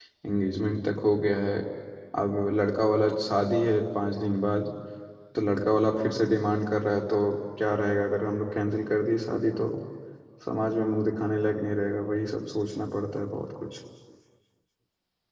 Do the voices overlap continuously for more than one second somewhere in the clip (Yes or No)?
No